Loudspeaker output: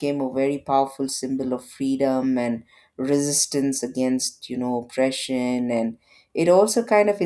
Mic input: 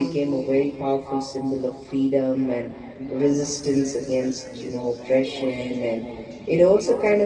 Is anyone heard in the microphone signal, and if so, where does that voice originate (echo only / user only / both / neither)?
both